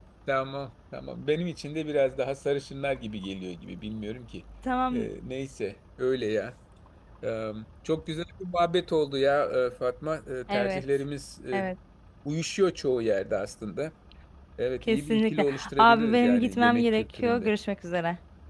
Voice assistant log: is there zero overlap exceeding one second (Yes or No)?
No